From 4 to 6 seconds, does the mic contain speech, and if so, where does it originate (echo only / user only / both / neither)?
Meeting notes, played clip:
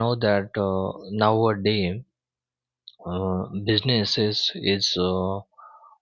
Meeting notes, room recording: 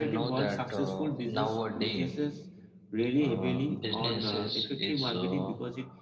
both